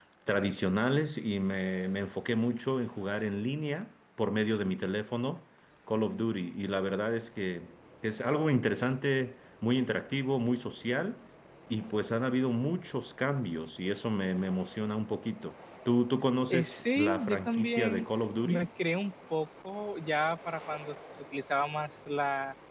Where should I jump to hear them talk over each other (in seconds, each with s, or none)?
16.5 s